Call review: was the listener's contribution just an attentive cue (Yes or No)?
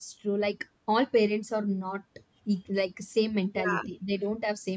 Yes